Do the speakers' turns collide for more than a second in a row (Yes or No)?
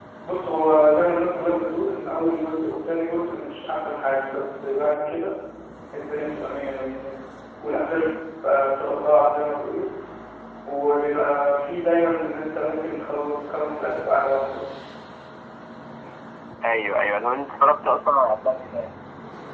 No